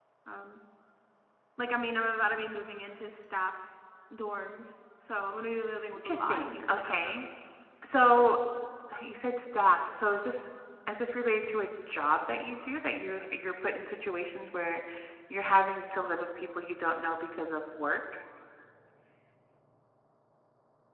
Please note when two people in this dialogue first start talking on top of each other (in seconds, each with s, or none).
6.0 s